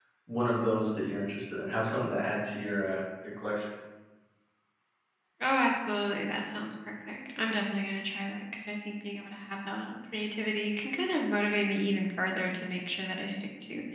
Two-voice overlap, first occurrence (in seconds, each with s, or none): none